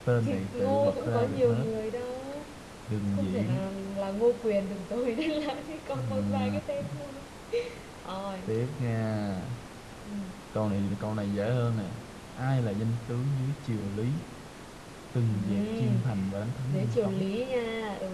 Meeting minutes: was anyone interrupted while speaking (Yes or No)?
Yes